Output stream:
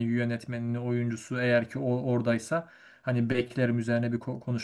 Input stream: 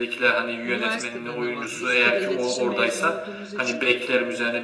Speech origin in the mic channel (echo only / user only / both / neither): both